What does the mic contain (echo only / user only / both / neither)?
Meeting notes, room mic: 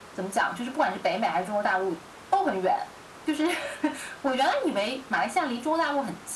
echo only